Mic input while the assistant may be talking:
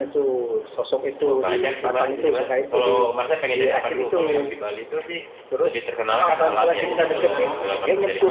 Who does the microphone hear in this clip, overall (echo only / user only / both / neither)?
both